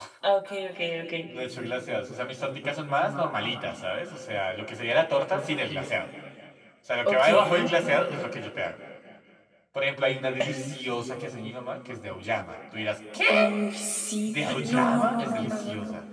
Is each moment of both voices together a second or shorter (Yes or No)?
No